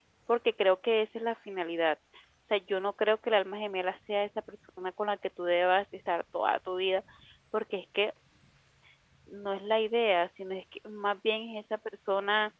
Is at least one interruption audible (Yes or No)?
No